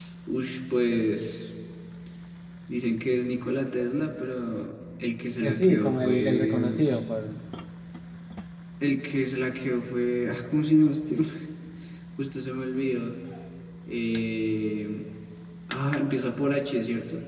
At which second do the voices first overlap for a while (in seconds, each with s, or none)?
5.4 s